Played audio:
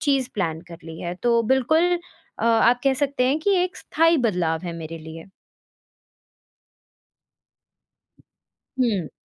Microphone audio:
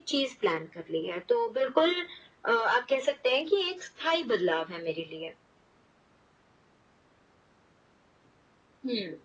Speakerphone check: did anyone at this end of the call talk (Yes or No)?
No